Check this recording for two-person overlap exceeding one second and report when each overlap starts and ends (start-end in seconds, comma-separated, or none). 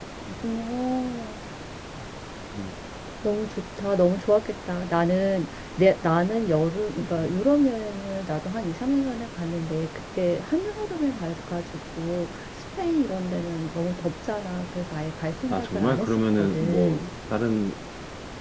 15.5-17.1